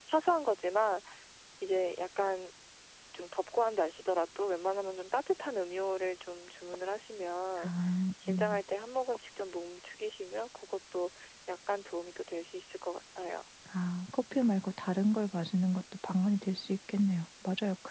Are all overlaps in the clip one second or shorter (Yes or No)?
Yes